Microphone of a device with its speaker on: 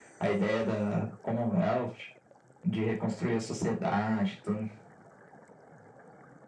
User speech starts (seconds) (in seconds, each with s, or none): none